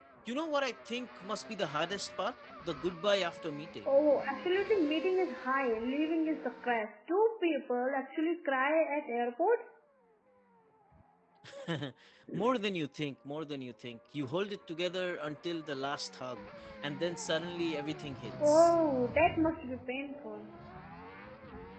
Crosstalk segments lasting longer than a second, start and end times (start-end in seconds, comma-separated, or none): none